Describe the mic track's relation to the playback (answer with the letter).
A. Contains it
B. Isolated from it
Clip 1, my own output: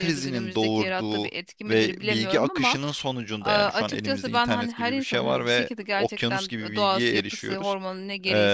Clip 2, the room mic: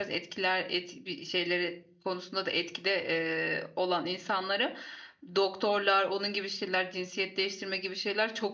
B